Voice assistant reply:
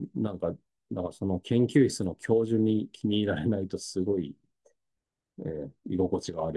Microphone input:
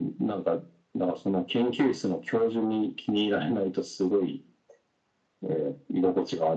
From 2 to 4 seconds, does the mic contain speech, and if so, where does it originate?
echo only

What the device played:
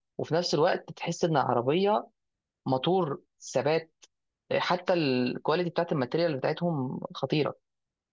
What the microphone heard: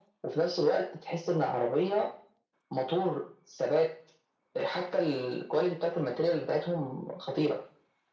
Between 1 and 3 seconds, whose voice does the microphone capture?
echo only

